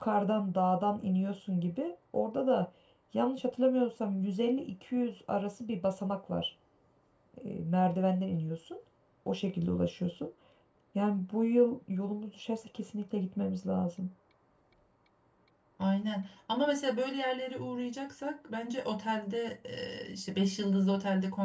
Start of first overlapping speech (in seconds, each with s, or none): none